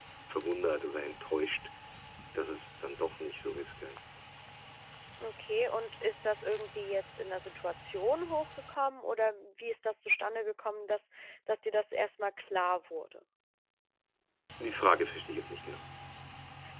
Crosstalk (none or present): none